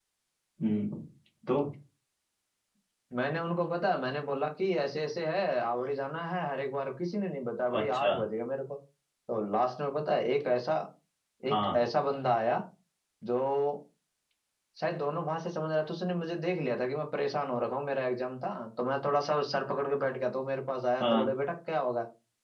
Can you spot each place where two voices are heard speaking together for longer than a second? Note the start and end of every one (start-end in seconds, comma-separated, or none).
none